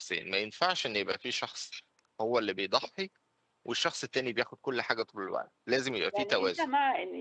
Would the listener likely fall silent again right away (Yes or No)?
No